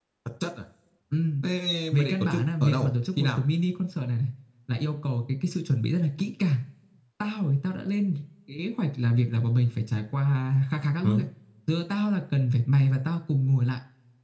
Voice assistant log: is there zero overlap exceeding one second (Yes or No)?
No